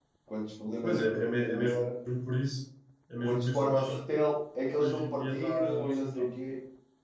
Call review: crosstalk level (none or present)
present